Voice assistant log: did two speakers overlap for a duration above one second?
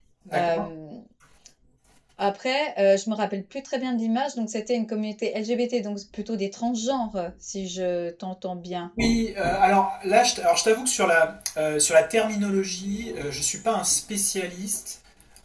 No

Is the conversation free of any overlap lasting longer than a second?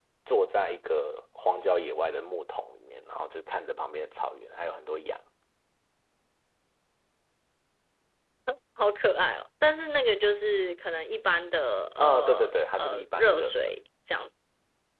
No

